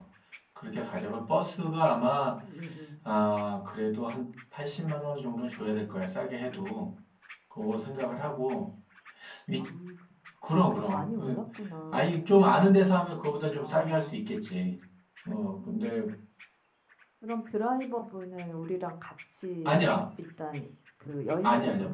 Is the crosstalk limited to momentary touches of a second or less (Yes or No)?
Yes